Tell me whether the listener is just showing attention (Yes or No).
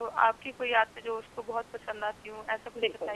No